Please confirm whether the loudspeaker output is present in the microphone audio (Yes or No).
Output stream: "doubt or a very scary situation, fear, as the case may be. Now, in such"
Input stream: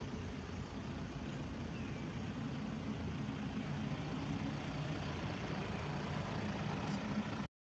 No